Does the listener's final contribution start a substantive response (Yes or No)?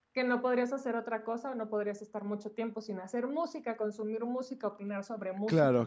Yes